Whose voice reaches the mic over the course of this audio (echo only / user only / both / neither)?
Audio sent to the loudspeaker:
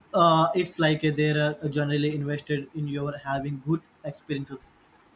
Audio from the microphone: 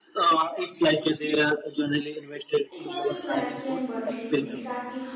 both